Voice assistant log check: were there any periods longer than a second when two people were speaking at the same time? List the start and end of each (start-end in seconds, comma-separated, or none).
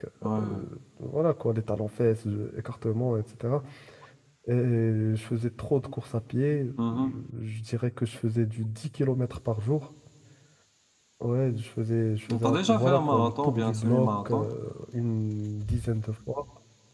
12.3-14.5